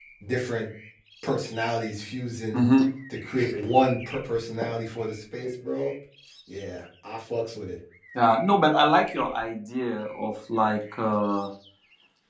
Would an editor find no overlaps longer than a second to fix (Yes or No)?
Yes